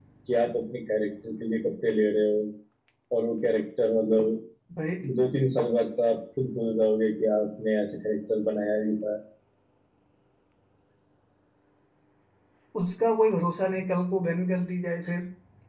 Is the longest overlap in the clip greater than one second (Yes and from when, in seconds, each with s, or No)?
No